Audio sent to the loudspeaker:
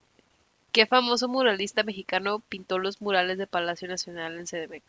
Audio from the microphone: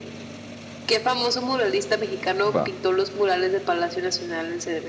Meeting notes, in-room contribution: present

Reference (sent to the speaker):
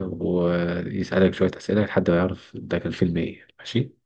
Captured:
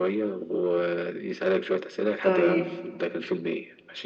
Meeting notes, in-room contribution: present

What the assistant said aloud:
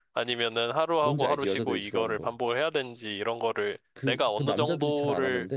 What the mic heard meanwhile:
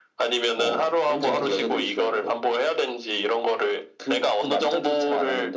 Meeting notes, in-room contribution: present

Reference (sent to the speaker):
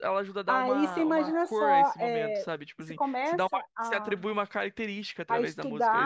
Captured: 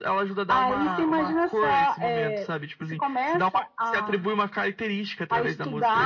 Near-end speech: none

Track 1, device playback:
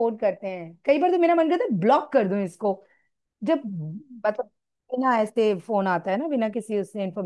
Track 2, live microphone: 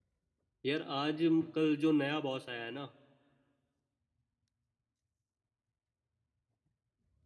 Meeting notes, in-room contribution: present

